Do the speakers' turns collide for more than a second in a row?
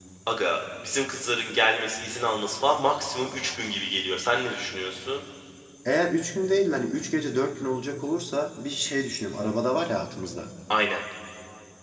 No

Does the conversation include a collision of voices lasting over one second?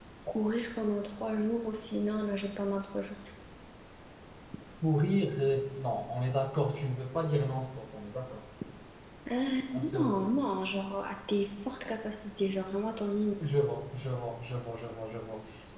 No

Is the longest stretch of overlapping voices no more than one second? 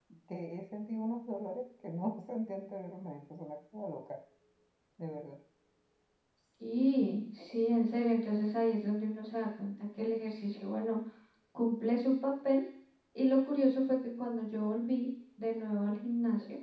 Yes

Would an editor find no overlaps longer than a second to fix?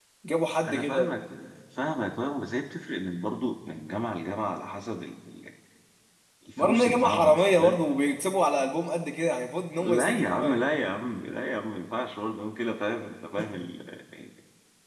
No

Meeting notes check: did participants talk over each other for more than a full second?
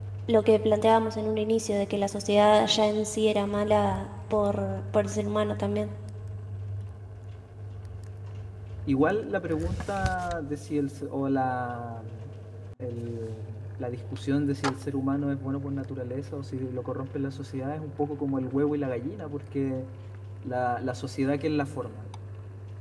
No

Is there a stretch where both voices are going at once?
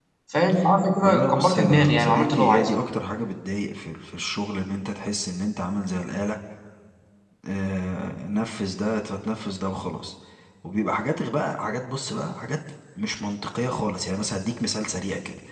Yes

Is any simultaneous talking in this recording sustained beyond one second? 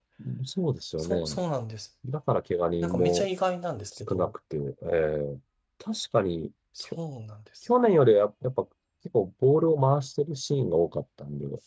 No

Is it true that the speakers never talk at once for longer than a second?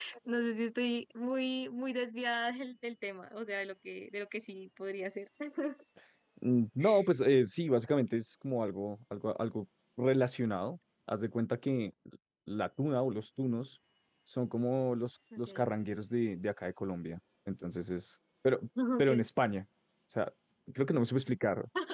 Yes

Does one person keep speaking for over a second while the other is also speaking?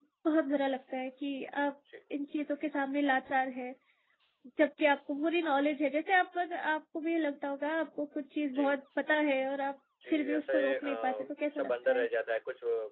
Yes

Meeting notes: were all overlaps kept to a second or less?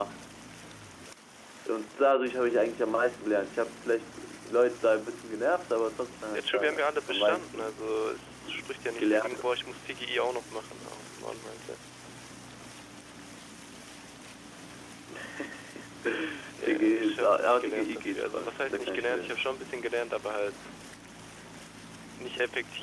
No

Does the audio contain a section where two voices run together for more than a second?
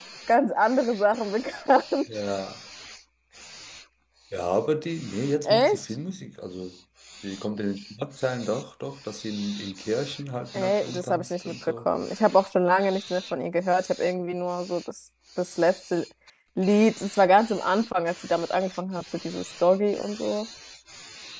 Yes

